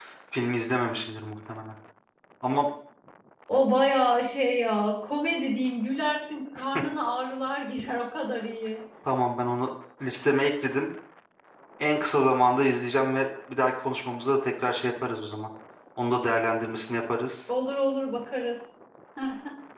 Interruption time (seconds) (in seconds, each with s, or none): none